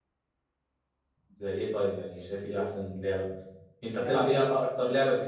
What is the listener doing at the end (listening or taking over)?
listening